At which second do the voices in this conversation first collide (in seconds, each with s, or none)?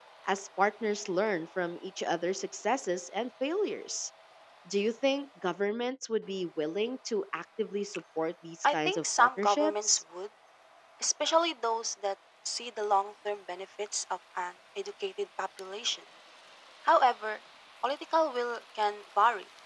8.6 s